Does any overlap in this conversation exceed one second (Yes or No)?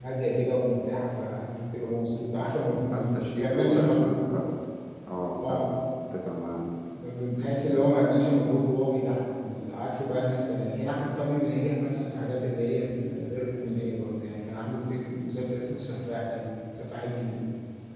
Yes